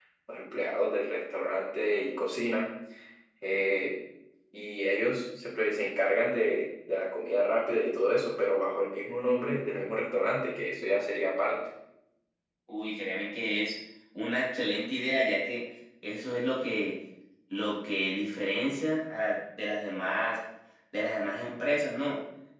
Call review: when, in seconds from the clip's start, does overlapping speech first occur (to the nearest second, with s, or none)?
none